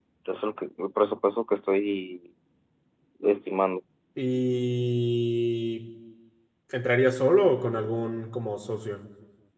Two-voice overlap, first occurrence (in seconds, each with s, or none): none